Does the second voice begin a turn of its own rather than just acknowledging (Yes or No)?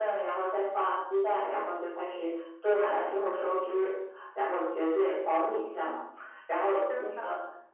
No